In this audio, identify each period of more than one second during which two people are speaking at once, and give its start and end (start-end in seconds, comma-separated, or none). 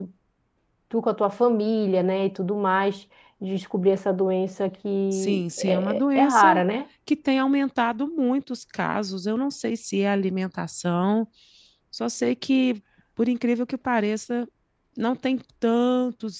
5.1-6.6